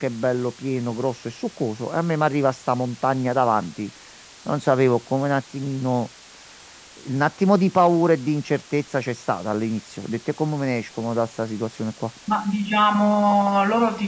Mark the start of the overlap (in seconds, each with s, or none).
none